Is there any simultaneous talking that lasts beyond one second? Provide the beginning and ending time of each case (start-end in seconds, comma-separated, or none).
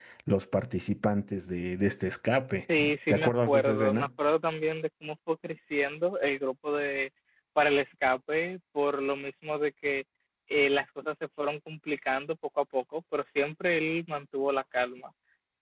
2.8-4.1